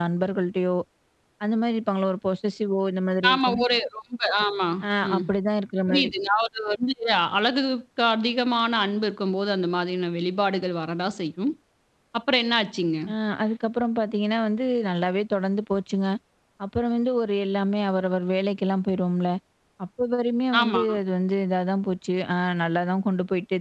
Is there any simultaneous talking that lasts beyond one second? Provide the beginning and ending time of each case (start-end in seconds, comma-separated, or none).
none